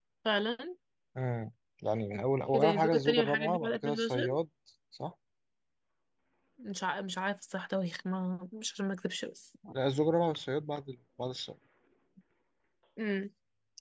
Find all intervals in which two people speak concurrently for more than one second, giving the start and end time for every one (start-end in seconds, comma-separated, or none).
2.5-4.4